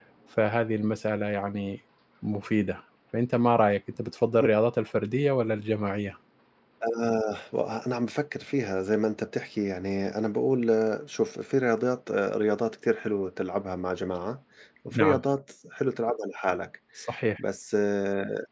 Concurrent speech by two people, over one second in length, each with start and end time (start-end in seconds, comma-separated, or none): none